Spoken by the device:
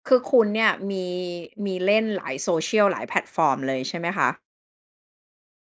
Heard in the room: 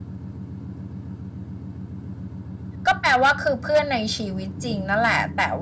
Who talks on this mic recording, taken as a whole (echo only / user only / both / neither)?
user only